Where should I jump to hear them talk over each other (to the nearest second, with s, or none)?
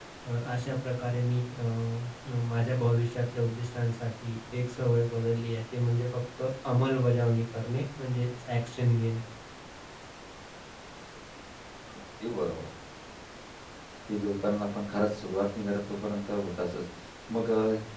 none